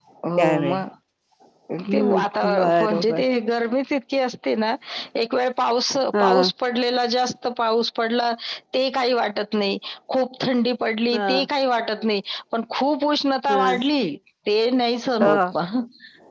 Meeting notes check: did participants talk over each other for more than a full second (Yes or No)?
Yes